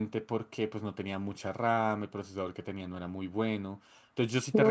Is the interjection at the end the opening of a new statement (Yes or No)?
No